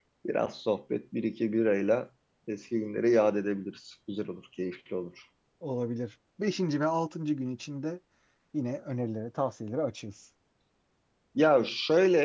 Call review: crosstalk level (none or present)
none